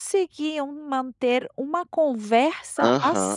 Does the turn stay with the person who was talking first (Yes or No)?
No